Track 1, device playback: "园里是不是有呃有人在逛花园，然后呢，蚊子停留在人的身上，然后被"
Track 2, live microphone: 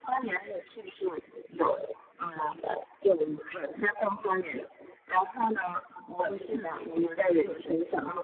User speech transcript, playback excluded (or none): 不是的，不是兔子。